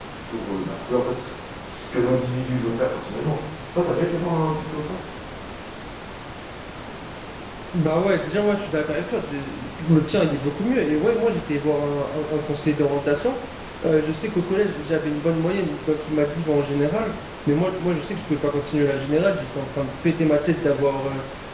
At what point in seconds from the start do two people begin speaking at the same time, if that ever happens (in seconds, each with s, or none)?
none